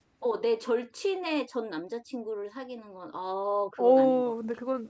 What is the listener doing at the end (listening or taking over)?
taking over